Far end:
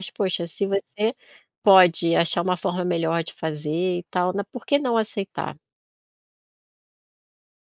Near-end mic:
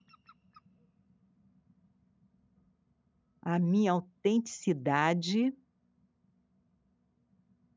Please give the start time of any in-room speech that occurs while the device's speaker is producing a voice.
3.4 s

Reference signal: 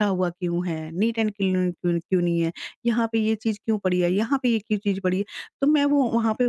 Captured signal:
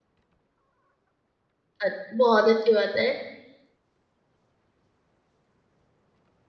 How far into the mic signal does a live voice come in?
1.8 s

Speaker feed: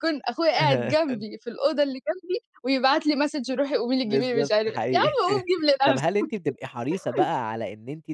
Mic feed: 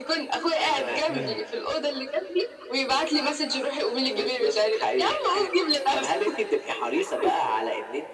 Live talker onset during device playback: 1.1 s

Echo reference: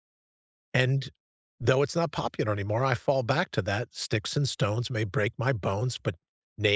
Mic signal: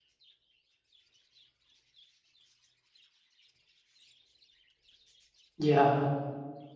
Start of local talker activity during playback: 5.6 s

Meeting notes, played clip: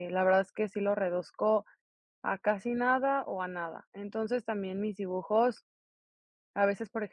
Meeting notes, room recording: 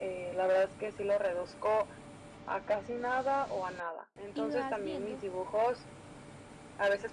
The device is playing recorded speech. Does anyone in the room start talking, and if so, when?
4.3 s

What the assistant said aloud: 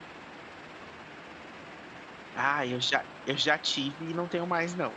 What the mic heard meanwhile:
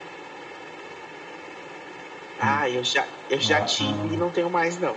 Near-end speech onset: 2.4 s

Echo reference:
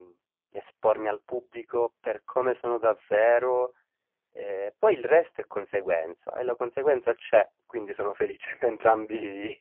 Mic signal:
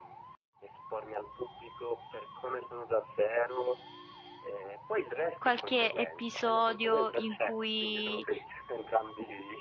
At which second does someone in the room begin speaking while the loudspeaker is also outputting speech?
5.4 s

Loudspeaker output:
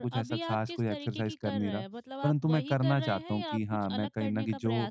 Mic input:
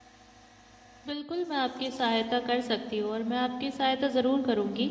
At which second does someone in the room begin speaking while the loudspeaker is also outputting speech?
1.1 s

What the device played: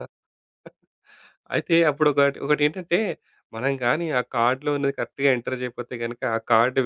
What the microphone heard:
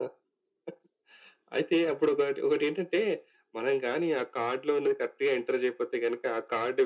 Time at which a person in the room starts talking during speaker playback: none

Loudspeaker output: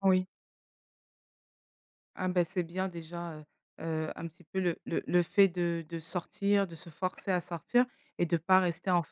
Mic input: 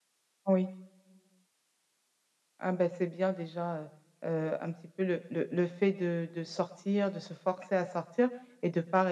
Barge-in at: none

